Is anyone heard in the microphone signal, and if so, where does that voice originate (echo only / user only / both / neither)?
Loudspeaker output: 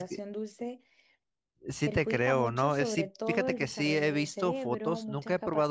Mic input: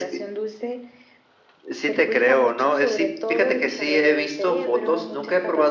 echo only